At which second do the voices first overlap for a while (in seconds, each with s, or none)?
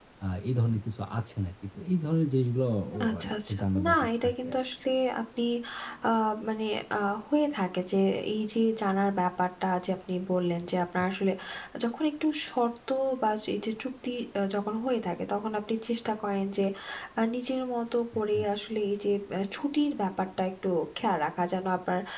2.9 s